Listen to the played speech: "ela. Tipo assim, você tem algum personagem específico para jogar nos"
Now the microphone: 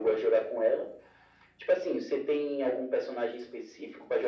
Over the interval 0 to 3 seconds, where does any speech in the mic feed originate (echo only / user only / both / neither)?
echo only